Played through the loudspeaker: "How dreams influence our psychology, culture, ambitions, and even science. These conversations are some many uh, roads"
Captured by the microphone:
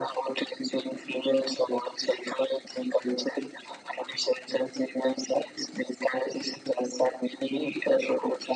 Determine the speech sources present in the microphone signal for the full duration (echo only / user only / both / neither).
echo only